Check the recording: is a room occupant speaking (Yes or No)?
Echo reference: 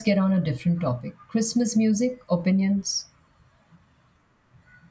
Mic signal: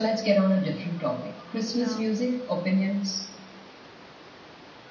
Yes